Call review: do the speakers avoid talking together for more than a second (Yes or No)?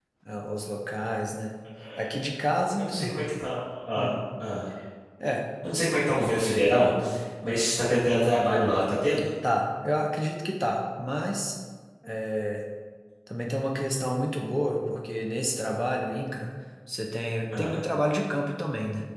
Yes